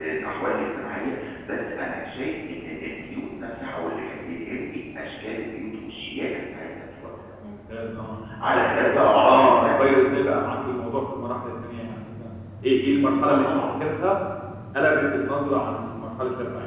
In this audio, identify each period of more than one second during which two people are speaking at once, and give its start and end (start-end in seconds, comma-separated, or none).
8.5-10.0